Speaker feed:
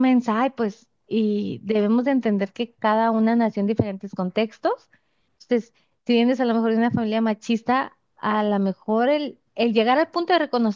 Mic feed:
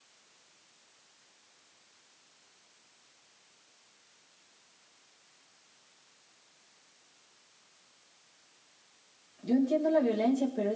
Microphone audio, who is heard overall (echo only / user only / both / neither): user only